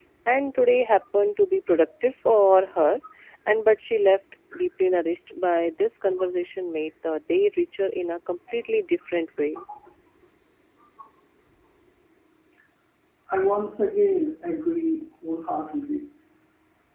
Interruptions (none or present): none